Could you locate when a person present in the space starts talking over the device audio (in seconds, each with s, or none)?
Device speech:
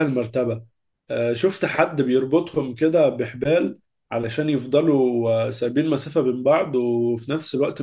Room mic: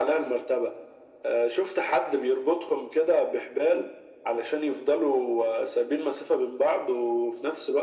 none